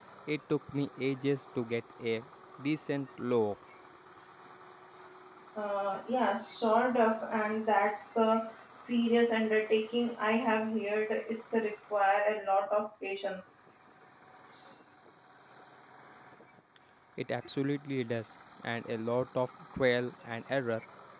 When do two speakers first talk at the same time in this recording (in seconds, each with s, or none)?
none